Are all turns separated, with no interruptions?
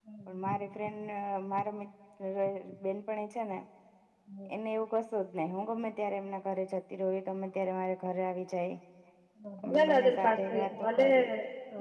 No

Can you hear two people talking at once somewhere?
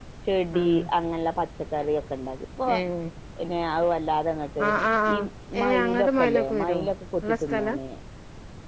Yes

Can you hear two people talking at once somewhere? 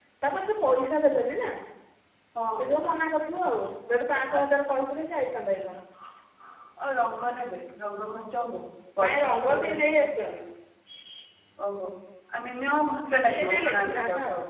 Yes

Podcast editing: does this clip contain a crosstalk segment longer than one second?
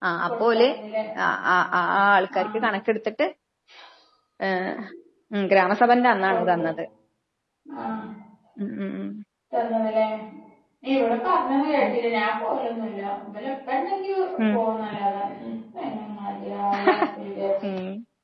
No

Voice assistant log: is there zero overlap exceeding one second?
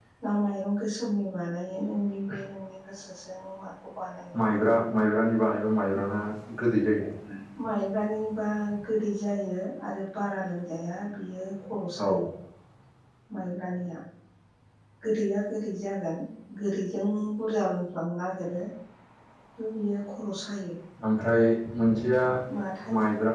Yes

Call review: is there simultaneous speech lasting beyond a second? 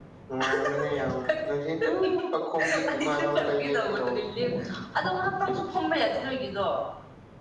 Yes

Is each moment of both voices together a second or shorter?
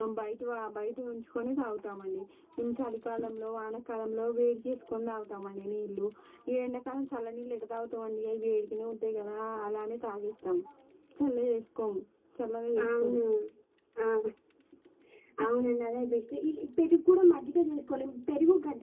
Yes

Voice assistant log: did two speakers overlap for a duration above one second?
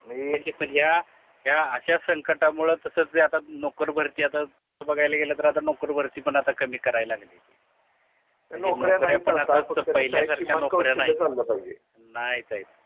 Yes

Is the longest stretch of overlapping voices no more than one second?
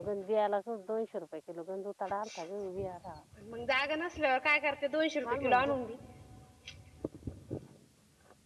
Yes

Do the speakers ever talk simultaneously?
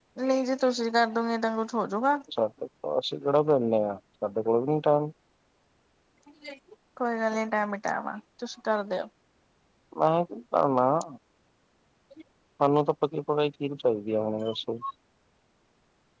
No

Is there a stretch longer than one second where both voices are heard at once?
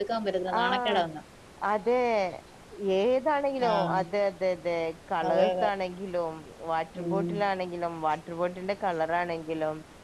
No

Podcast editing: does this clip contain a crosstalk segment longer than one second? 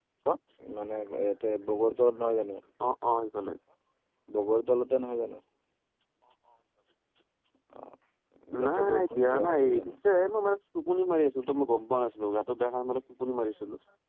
Yes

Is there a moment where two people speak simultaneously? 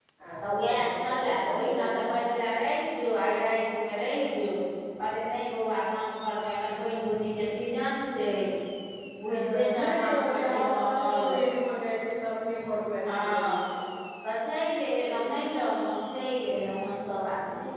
Yes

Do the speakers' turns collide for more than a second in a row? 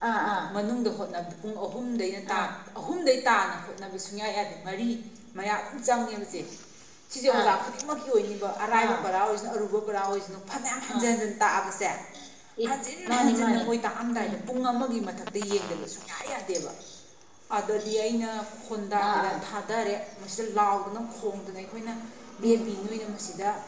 No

